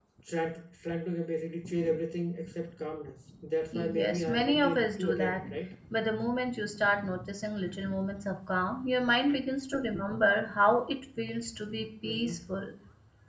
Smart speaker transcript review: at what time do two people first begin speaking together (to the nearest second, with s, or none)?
4 s